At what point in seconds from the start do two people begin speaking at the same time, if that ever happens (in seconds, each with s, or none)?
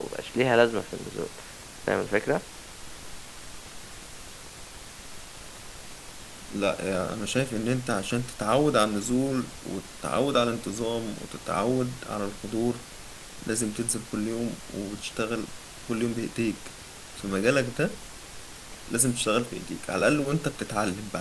none